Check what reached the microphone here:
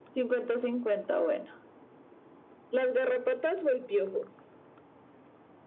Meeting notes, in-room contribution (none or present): none